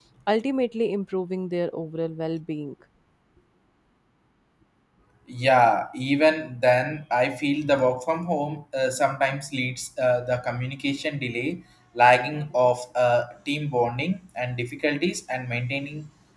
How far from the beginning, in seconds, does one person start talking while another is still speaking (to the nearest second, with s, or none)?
none